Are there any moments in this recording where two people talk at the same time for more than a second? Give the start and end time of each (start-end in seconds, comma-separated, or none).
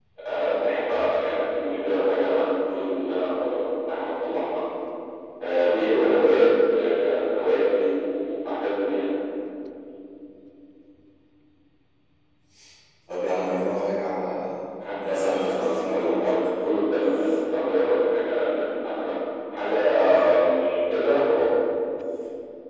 15.0-16.3